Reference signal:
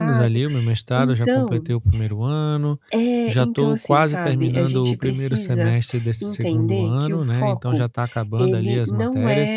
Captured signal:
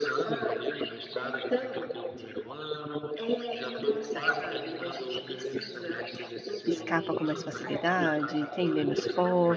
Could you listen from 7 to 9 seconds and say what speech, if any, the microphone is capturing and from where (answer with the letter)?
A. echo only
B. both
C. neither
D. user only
B